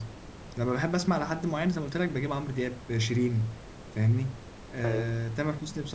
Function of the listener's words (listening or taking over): listening